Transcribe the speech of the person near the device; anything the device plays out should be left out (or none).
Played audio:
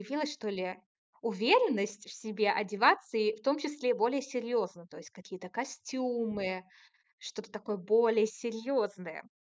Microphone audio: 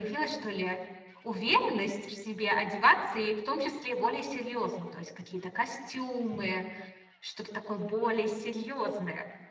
none